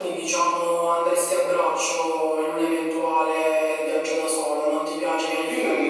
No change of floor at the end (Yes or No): No